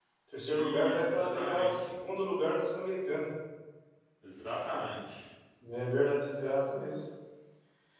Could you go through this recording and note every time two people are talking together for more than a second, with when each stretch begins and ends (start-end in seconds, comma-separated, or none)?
0.5-1.9